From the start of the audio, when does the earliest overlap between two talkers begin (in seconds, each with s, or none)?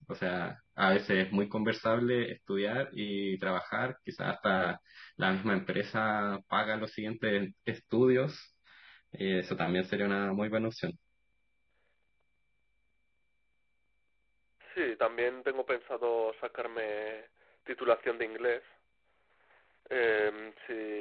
none